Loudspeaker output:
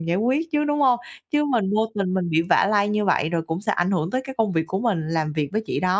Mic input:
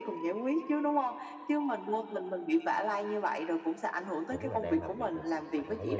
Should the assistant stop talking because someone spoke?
Yes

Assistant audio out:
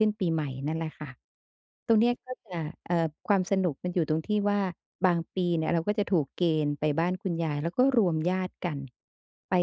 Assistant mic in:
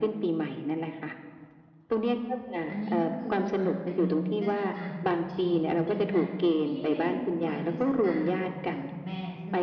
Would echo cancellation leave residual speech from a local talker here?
Yes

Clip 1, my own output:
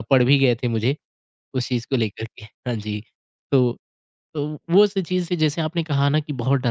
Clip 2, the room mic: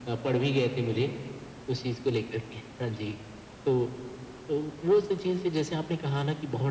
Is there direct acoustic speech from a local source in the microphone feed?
No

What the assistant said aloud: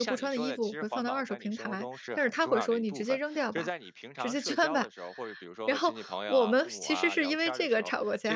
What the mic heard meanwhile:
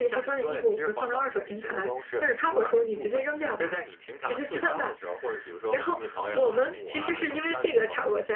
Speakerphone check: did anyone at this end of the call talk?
No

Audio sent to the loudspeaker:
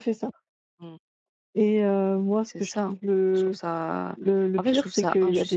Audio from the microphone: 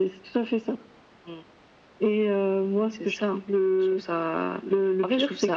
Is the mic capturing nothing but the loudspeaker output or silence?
Yes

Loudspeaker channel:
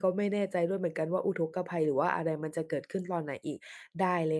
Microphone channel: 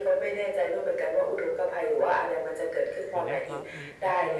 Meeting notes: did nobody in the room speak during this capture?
No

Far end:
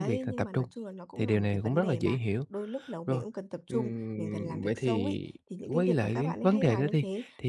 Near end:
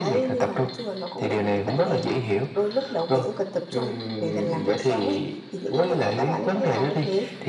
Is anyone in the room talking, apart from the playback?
No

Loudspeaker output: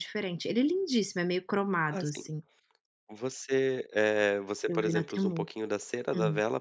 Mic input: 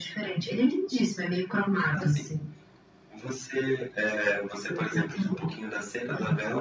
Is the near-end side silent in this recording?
Yes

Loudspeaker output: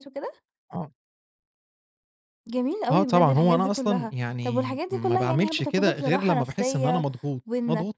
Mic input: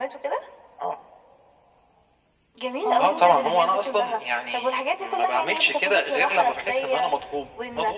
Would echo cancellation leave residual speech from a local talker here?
Yes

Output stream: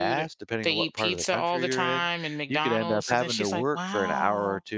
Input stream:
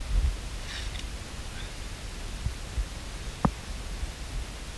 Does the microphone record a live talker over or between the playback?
No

